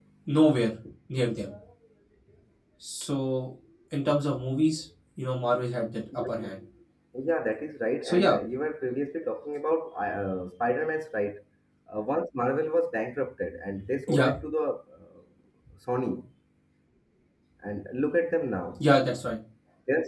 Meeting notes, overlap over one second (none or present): none